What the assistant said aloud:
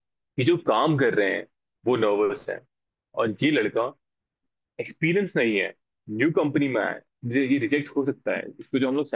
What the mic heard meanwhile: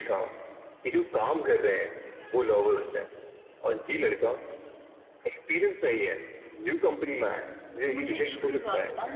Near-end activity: present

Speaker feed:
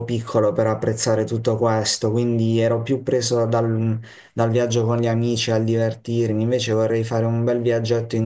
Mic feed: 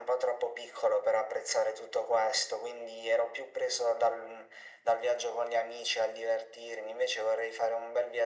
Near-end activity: none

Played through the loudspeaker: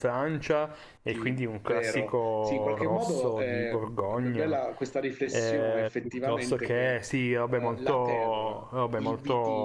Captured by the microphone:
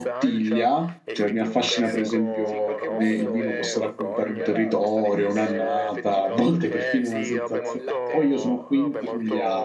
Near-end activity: present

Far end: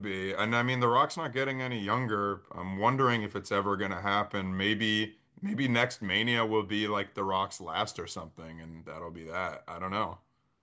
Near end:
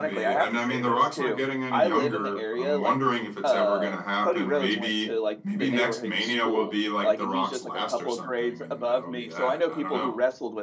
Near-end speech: present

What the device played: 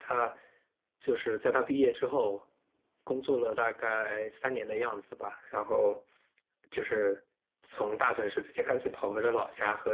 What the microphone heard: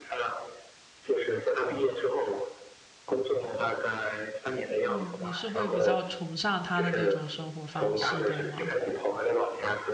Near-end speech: present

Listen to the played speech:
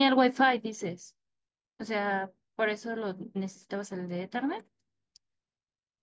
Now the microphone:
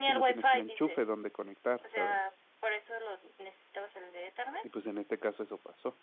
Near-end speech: present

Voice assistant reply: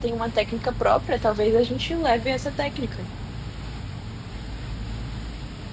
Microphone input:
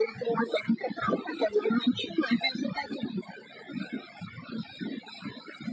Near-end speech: none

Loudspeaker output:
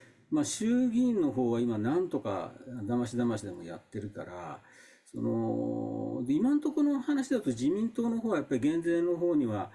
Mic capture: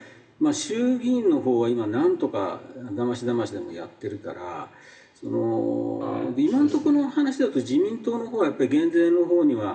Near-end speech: present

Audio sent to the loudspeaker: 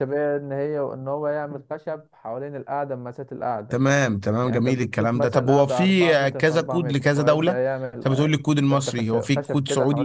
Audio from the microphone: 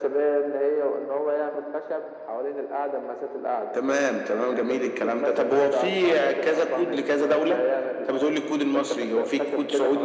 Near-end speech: none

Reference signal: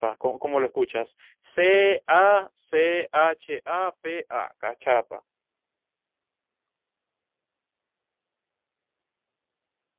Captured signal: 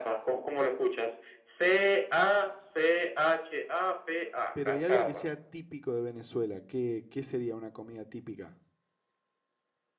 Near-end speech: present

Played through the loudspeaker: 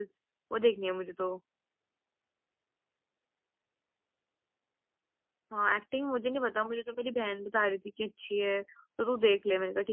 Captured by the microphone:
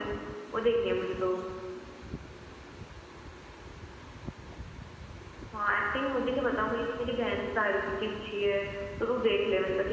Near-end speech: none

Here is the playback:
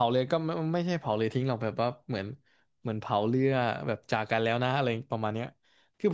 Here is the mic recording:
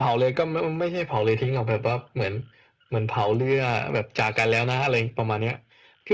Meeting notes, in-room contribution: none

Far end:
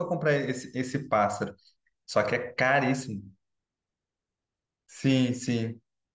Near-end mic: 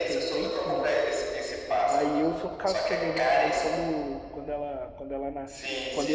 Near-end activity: present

